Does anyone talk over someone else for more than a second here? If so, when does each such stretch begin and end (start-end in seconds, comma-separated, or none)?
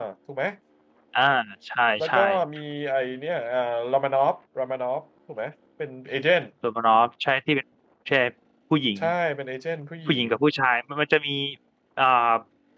none